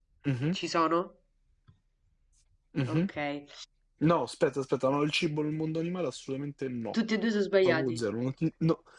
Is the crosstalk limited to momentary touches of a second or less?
Yes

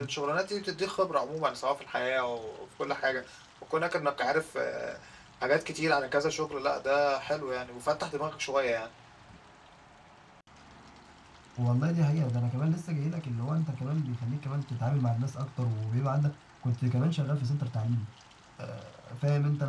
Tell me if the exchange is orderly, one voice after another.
Yes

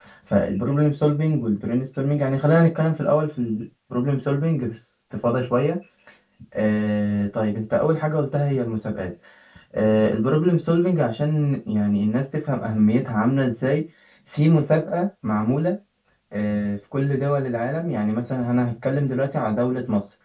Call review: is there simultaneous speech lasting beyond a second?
No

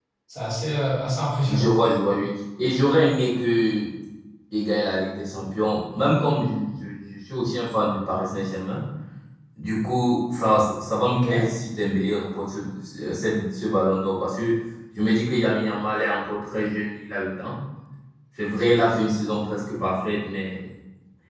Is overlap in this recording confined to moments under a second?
Yes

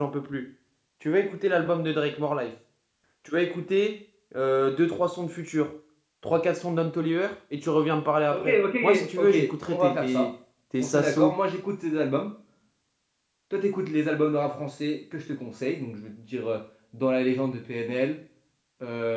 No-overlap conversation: No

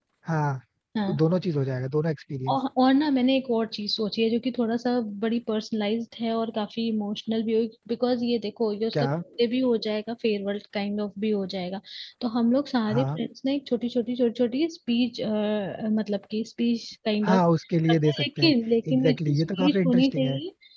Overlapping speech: Yes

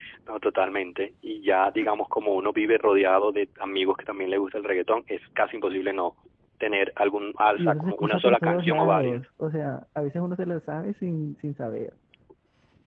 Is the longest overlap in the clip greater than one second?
Yes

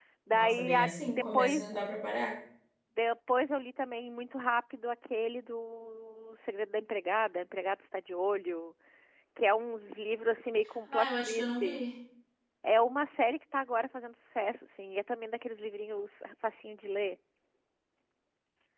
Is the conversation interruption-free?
No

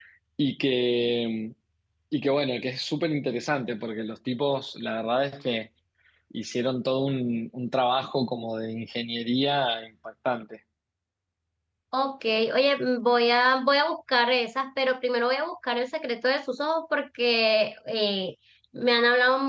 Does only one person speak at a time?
Yes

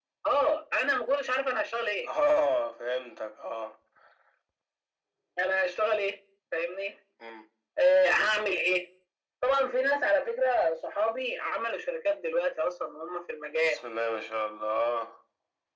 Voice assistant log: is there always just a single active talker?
Yes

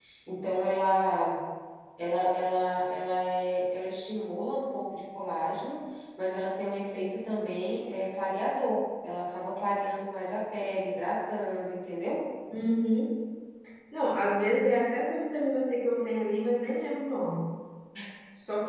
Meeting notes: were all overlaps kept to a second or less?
Yes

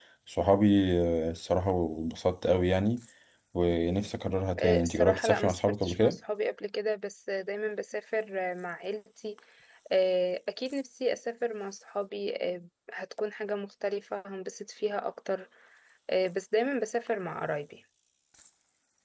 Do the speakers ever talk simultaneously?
Yes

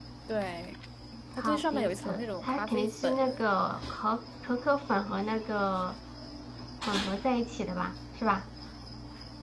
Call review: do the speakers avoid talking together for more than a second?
No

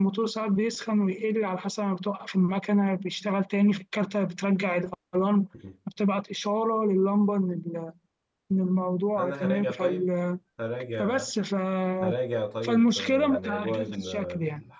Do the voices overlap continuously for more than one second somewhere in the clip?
Yes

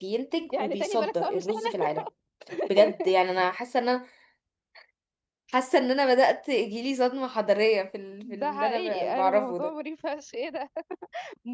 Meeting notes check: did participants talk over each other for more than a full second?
Yes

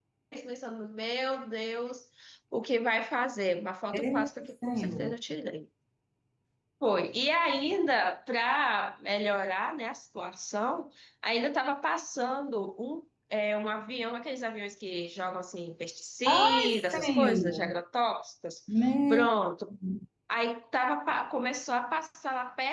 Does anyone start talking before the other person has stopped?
Yes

